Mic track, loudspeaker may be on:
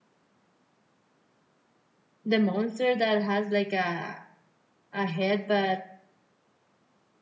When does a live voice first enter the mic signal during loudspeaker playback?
2.2 s

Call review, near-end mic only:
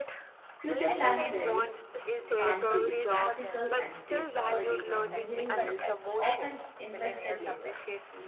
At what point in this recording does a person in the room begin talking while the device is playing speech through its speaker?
0.6 s

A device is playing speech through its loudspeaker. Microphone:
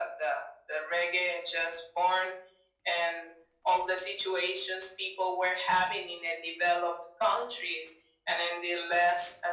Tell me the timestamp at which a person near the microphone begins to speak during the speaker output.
none

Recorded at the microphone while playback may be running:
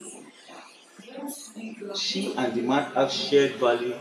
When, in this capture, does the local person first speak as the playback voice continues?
1.9 s

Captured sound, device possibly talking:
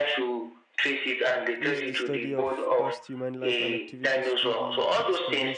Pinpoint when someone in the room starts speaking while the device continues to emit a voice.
1.6 s

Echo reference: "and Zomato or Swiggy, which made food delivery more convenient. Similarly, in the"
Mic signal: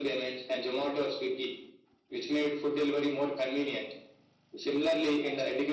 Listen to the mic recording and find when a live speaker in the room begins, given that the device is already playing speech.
none

